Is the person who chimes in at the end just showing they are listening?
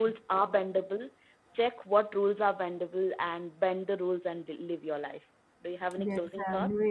No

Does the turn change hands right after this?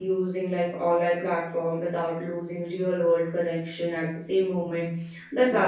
No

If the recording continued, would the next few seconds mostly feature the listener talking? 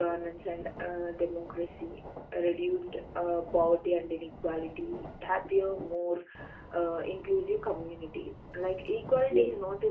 No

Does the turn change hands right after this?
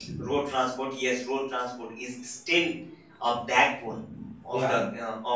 No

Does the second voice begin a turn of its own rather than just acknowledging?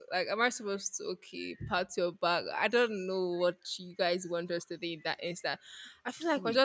No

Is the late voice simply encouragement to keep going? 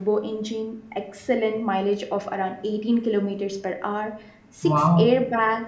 Yes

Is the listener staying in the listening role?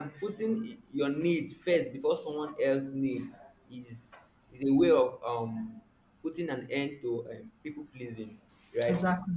Yes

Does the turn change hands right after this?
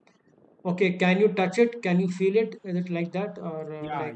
Yes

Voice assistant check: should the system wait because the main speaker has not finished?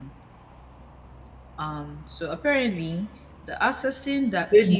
No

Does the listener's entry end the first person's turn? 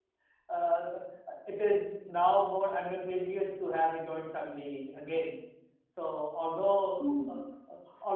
No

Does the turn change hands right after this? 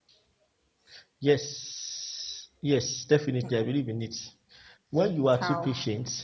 No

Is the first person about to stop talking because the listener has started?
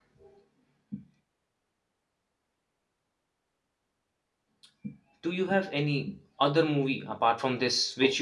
No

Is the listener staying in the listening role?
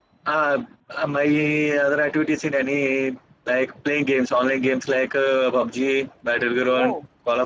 Yes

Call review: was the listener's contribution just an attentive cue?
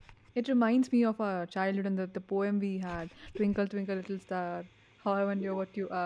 Yes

